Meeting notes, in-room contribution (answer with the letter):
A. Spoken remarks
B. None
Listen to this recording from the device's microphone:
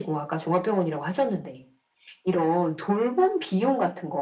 B